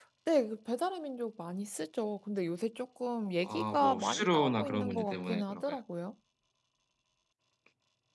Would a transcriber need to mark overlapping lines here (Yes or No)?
Yes